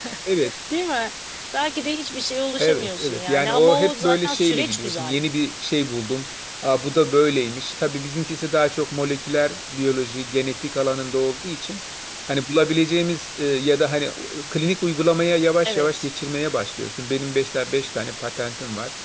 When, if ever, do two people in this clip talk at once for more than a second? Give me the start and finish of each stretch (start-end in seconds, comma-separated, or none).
2.6-5.2